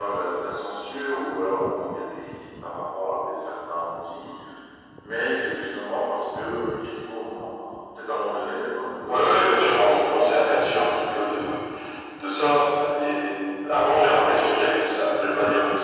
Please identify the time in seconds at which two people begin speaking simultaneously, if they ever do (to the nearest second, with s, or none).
9 s